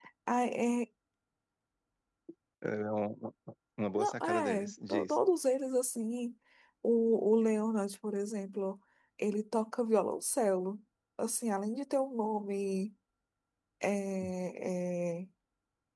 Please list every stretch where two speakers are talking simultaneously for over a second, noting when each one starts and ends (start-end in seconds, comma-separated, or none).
3.9-5.2